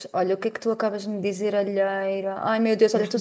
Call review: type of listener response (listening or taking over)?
listening